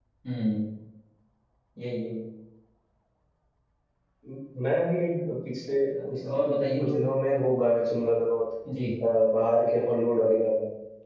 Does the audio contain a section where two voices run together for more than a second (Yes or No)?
No